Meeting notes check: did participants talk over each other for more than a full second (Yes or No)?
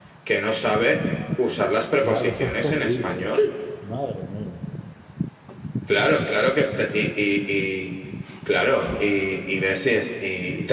Yes